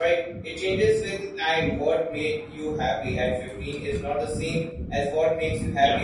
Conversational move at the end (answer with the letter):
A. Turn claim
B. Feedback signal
A